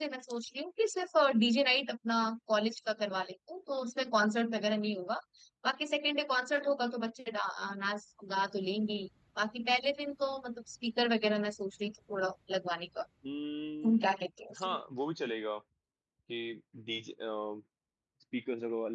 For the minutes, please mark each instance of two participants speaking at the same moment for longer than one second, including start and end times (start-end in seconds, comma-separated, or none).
none